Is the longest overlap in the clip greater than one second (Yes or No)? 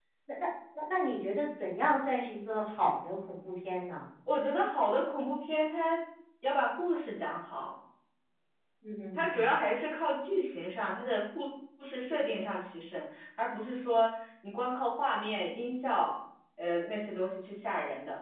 No